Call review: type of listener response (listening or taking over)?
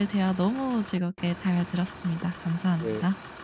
taking over